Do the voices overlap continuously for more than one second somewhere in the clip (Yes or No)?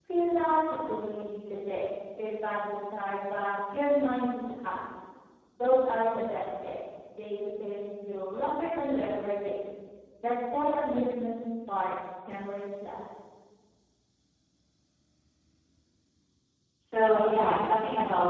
No